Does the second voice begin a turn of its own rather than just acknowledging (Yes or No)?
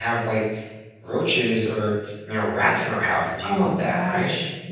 Yes